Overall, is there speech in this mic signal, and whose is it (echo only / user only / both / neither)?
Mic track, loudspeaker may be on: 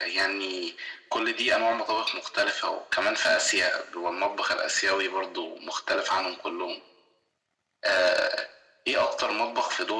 echo only